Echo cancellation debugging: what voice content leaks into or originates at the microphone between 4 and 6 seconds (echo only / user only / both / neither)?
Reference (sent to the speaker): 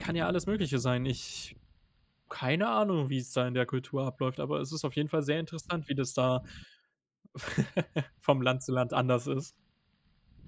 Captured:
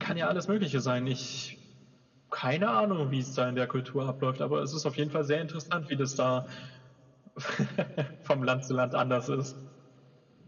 echo only